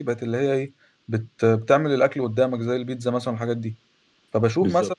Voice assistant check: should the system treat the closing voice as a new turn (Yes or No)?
No